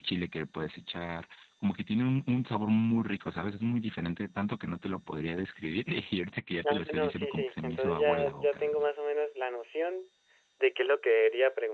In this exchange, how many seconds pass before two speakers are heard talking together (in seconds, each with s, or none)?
6.6 s